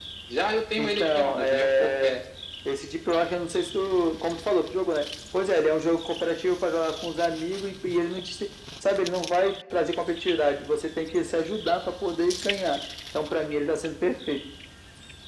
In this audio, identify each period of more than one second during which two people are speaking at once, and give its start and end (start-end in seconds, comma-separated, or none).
0.8-2.2